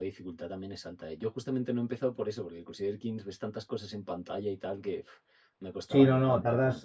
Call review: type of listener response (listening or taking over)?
taking over